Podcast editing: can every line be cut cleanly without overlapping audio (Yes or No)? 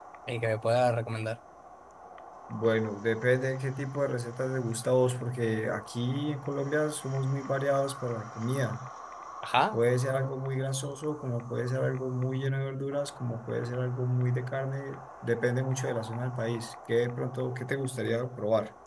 Yes